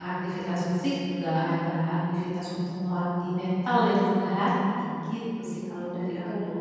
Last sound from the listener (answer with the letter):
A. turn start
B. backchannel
A